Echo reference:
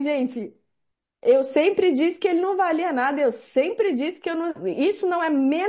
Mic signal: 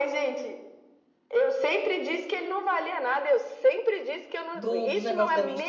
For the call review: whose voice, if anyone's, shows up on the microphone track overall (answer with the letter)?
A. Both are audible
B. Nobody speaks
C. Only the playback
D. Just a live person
A